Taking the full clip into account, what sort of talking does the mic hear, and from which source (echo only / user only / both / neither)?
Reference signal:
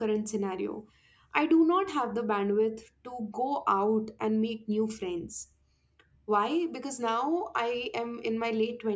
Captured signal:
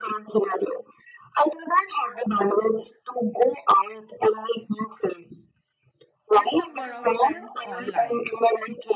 both